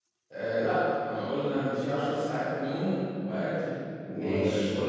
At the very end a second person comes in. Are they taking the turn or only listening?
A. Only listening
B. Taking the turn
A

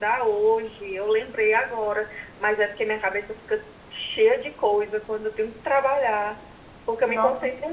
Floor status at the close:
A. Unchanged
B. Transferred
A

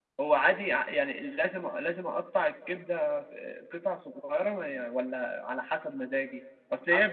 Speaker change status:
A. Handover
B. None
B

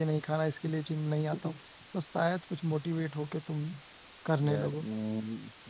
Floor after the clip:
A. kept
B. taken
B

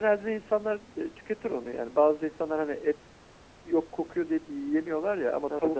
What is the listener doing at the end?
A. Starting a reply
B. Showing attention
B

